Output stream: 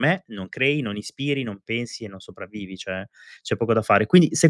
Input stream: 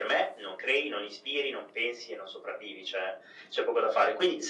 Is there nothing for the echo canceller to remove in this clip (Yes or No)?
No